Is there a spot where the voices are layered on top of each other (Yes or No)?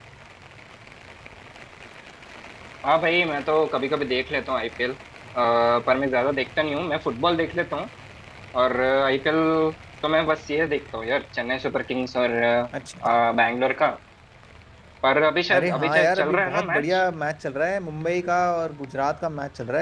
Yes